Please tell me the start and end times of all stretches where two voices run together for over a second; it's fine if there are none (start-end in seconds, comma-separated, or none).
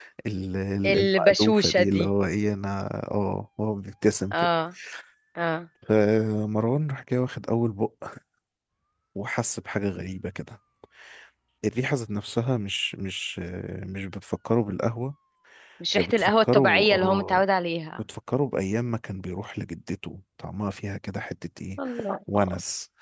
0.8-2.1, 15.9-17.4